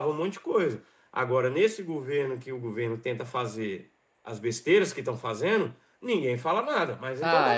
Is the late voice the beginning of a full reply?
Yes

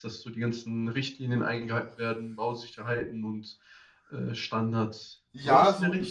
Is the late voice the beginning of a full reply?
Yes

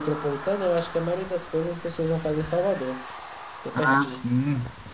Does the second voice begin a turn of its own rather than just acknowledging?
Yes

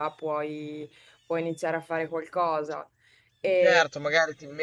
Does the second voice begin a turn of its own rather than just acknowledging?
Yes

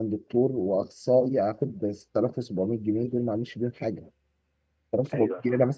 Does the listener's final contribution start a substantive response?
No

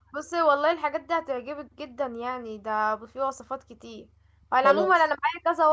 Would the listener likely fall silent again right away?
Yes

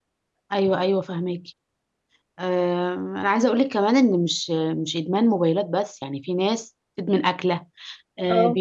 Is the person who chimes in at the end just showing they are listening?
Yes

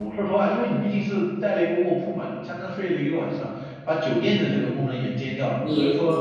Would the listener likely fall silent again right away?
No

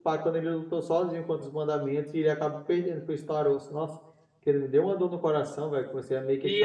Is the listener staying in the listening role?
No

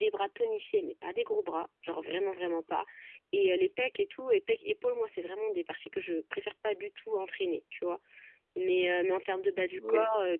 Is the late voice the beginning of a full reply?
No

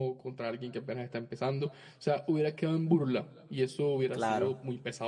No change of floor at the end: Yes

